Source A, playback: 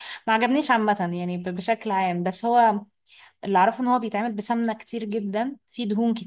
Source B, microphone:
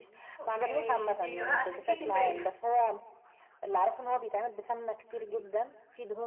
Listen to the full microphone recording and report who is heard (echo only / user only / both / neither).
both